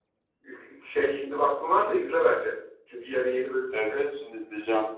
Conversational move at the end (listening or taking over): taking over